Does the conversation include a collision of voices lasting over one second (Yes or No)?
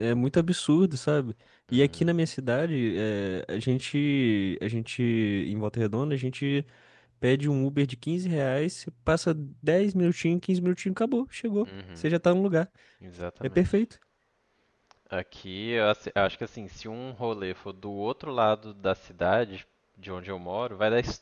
No